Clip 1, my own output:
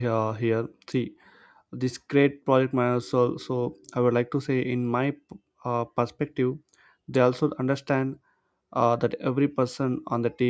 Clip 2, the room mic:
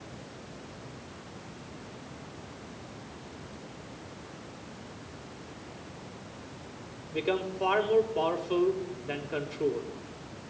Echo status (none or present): none